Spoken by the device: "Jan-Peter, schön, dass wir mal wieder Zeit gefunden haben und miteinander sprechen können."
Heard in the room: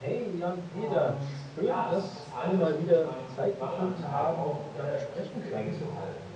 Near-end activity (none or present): present